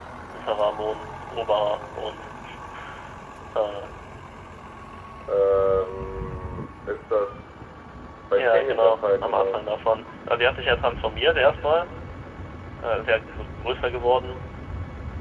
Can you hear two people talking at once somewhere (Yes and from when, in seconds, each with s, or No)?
Yes, from 8.4 s